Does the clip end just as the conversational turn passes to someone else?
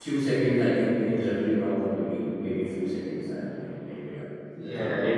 Yes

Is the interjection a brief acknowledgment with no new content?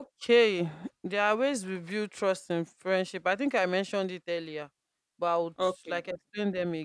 Yes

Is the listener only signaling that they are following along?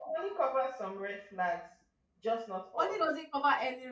No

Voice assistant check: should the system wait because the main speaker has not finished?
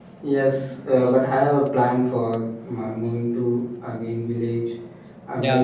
Yes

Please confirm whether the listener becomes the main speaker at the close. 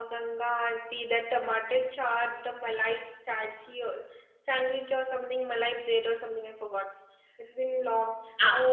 Yes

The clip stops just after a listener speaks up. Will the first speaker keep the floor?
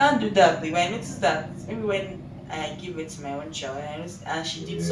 Yes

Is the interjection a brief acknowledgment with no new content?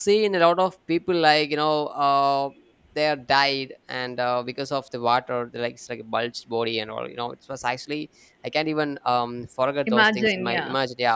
Yes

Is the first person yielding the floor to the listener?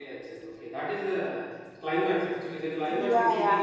Yes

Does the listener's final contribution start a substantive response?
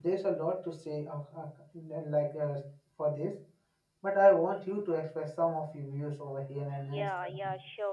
Yes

